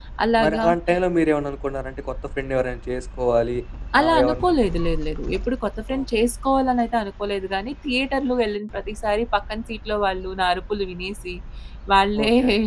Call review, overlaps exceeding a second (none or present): none